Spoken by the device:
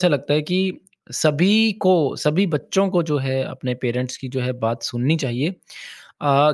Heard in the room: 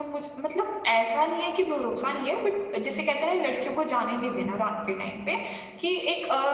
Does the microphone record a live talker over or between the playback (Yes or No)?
Yes